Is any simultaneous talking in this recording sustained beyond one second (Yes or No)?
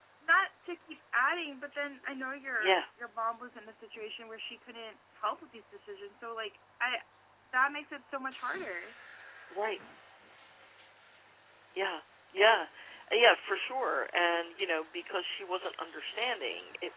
No